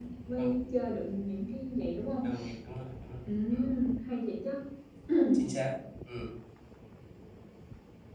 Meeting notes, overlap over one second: none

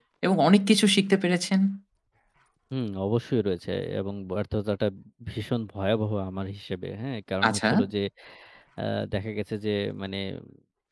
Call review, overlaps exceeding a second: none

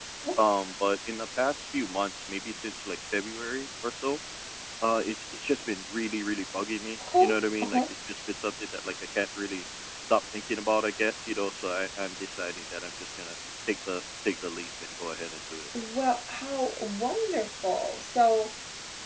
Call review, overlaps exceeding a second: none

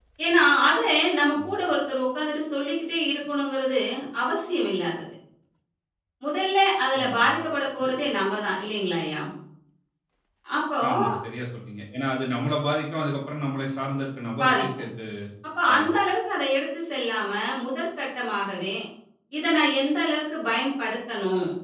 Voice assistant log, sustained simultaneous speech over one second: none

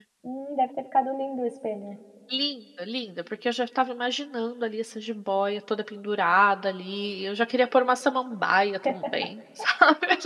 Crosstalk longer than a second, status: none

